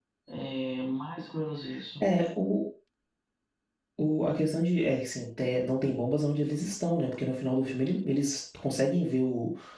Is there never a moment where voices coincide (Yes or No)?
Yes